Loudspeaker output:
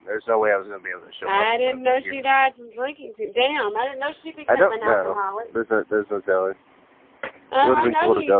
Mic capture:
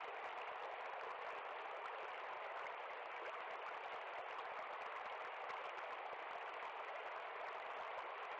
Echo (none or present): none